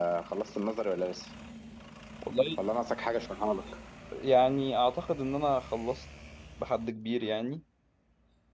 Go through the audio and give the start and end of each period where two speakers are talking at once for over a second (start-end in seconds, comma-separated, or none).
none